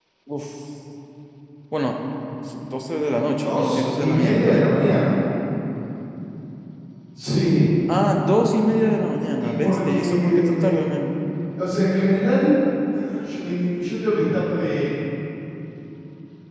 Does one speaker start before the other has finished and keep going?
Yes, from 3.4 s

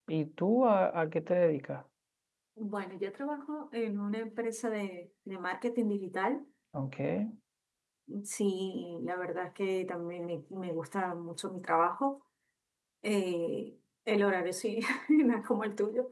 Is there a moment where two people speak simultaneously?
No

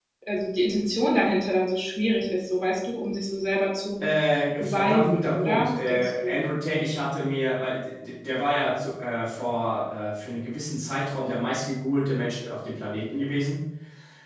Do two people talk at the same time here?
Yes, from 4.6 s

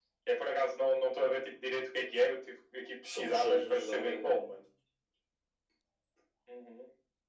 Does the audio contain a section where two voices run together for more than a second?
Yes, from 3.0 s

